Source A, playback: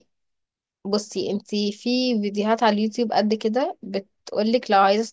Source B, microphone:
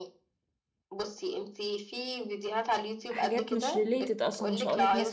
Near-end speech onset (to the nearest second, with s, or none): 3 s